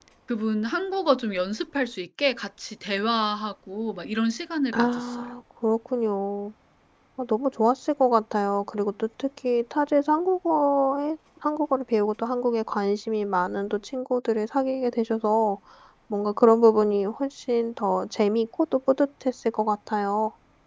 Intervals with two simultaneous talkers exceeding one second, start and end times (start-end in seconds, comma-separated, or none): none